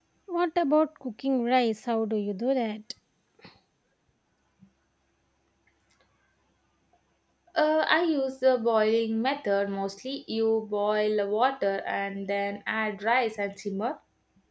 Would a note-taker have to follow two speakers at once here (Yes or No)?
No